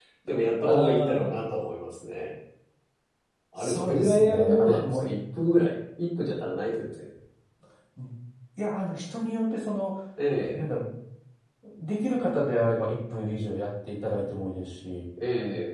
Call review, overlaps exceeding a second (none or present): present